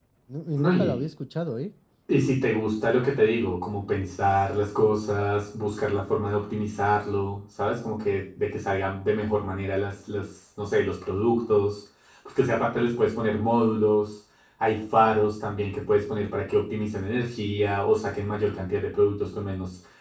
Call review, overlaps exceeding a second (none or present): none